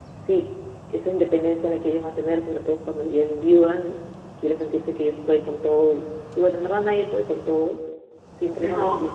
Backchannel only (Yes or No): Yes